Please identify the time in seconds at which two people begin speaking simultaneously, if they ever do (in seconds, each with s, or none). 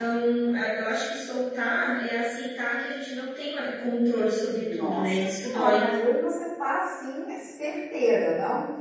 4.6 s